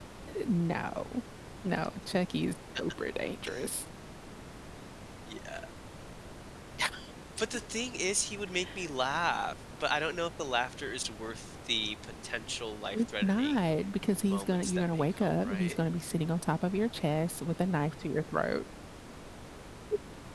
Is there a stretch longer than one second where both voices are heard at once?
Yes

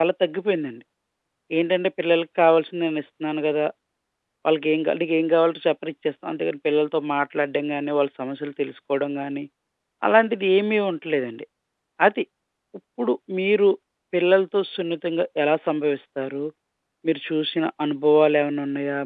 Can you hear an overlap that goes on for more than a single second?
No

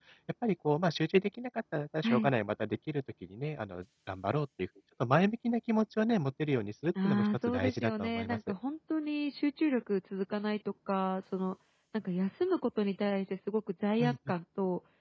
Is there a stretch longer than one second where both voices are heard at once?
Yes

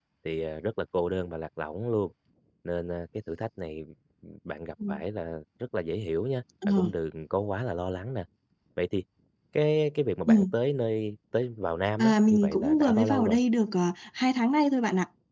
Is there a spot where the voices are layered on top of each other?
Yes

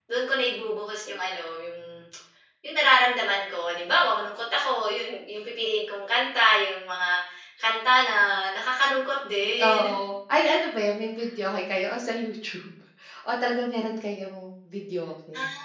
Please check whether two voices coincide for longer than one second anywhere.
No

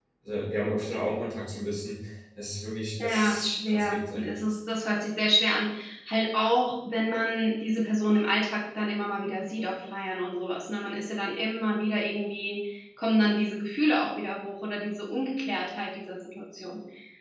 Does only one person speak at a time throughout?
No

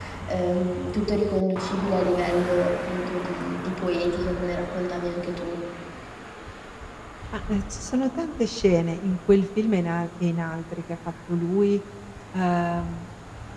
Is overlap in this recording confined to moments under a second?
Yes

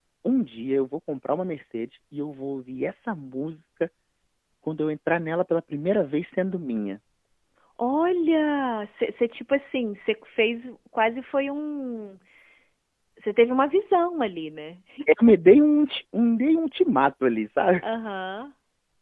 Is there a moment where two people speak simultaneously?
No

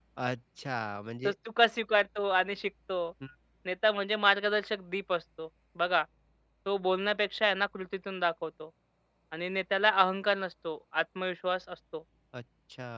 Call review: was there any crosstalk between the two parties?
No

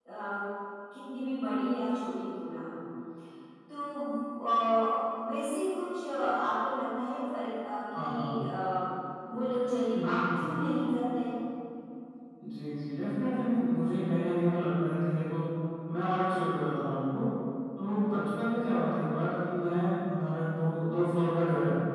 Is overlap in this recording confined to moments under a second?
Yes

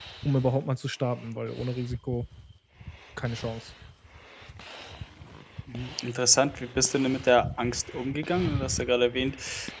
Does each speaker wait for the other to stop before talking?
Yes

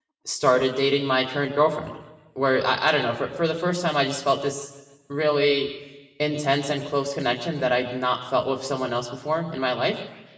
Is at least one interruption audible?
No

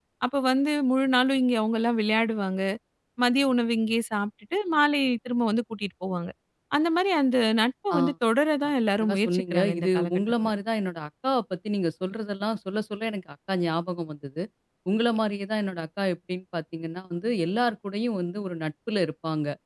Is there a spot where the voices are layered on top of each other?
Yes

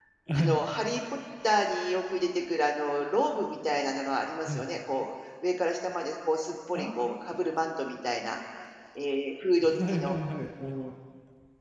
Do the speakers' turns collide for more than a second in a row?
No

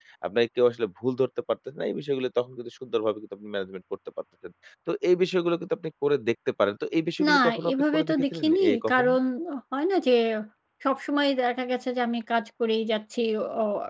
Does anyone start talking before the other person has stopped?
Yes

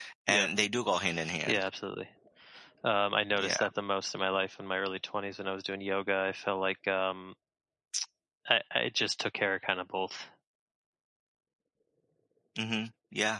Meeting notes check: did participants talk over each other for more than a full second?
No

